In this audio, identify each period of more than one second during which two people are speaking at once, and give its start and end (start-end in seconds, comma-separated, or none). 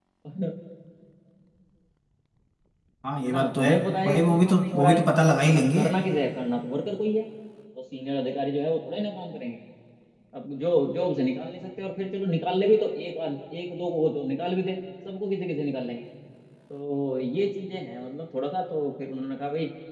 3.2-5.0